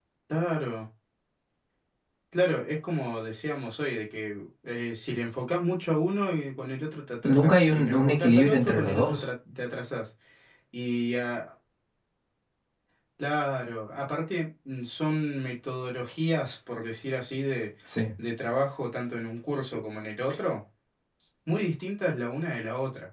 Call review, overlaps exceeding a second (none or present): present